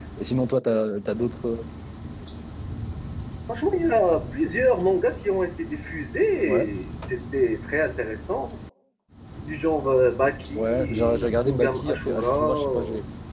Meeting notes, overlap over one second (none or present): present